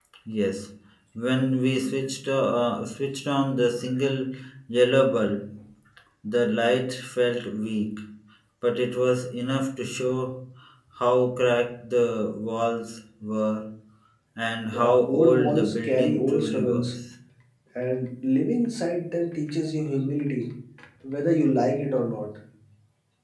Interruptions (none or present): present